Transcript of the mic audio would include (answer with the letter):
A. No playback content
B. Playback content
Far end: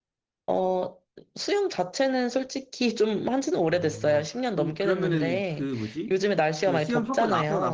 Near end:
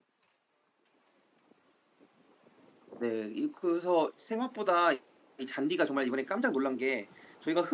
A